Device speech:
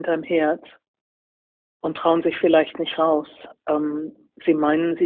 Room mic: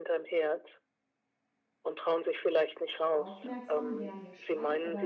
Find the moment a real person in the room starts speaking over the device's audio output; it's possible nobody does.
3 s

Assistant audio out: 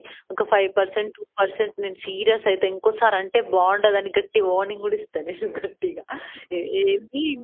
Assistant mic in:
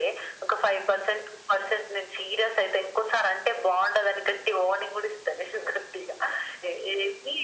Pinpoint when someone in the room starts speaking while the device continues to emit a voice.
none

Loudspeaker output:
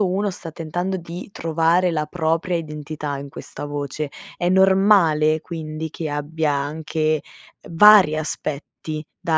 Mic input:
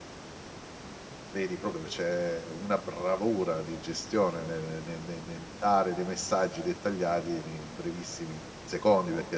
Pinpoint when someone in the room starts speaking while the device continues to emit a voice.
1 s

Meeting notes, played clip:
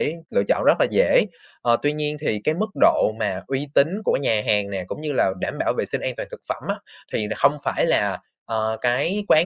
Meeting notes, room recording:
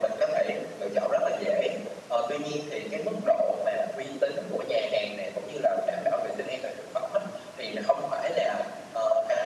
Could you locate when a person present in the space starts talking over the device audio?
none

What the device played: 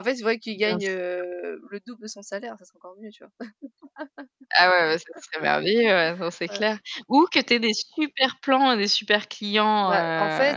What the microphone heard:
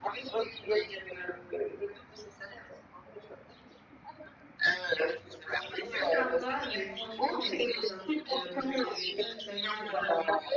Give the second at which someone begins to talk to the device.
6 s

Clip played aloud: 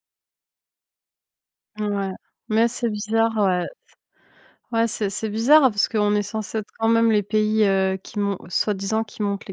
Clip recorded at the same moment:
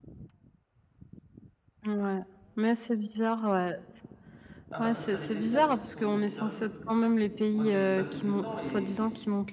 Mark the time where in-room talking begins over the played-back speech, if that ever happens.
5 s

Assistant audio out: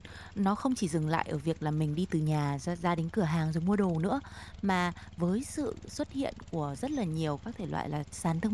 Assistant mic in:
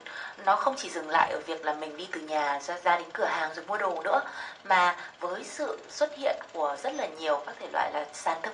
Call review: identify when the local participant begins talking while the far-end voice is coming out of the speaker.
none

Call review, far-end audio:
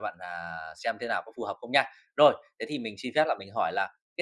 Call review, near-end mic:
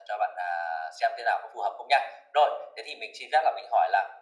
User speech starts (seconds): none

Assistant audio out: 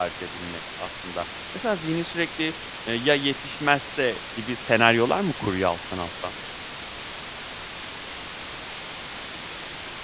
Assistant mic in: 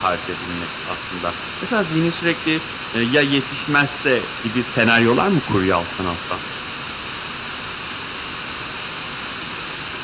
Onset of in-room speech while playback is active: none

